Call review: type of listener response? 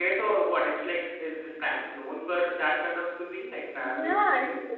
taking over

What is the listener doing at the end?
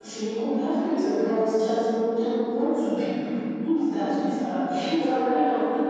listening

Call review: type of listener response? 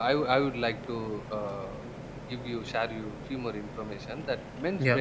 listening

